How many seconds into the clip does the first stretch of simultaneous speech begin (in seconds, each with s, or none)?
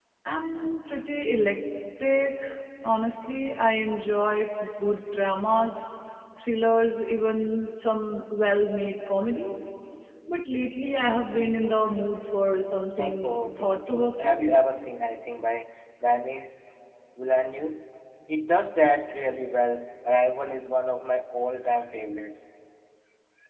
13.0 s